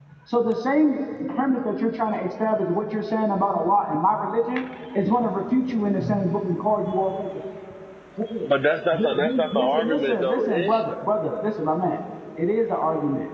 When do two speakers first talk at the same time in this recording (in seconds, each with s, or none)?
8.9 s